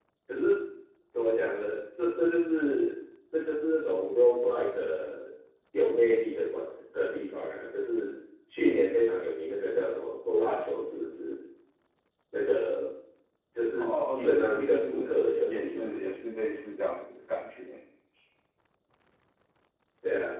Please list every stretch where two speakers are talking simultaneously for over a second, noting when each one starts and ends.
13.8-16.0

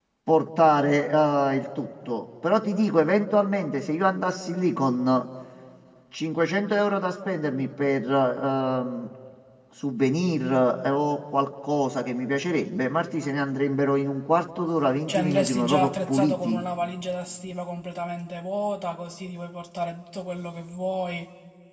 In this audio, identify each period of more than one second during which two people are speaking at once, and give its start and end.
15.1-16.6

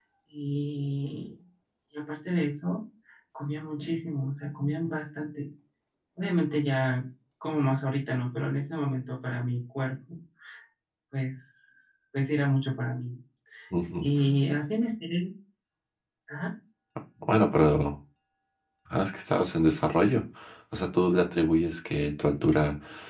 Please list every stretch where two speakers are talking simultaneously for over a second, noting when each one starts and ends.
none

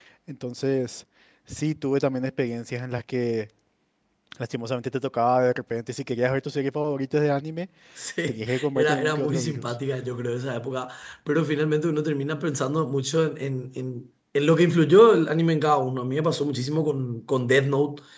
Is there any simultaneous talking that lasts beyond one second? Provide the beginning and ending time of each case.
8.3-9.7

